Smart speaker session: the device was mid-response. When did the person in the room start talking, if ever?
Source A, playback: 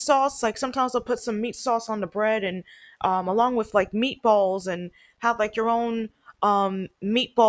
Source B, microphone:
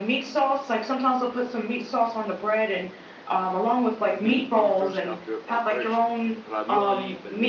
4.1 s

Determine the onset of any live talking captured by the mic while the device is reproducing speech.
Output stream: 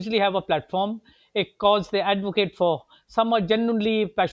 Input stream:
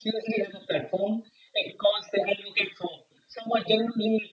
none

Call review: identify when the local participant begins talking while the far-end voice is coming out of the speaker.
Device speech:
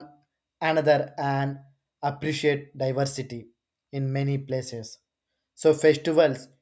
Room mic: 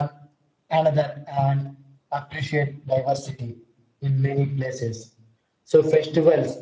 none

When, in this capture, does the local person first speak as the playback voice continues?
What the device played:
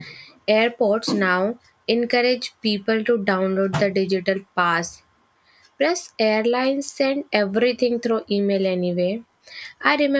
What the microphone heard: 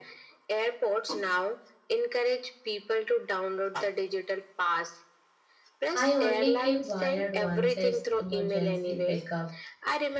5.9 s

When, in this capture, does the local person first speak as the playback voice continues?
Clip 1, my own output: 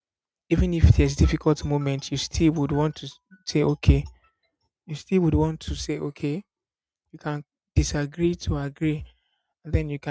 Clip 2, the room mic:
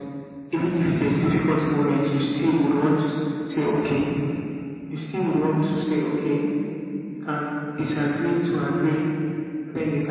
none

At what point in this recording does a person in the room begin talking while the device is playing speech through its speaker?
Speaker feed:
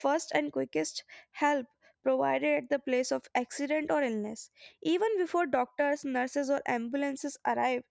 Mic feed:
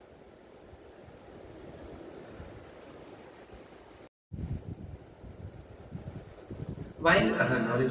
7.0 s

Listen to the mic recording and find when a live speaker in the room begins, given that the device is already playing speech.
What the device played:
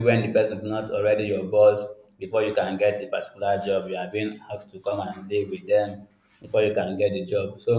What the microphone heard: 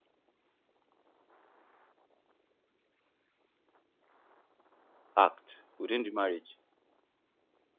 5.2 s

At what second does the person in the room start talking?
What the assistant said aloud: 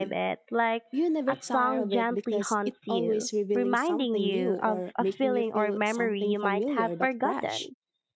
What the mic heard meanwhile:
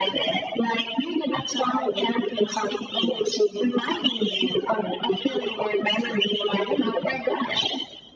none

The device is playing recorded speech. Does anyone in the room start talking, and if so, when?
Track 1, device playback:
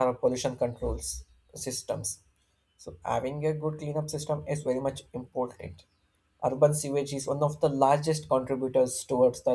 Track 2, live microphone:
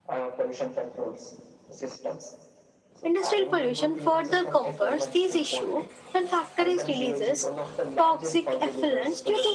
3.0 s

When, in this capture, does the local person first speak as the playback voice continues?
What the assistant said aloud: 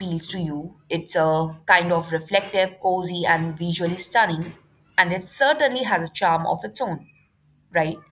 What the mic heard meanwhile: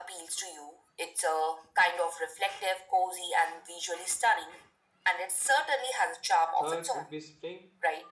6.5 s

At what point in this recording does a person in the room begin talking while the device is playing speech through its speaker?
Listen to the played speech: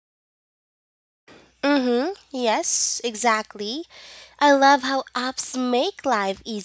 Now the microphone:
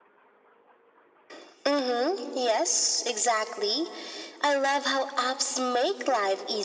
none

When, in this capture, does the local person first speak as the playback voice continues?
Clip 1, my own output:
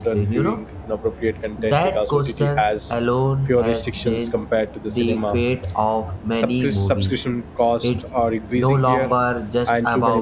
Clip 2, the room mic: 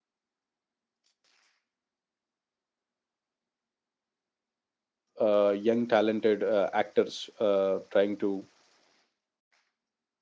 5.2 s

